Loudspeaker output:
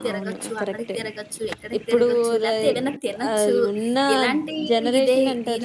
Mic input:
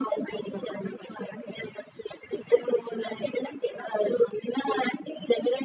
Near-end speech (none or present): none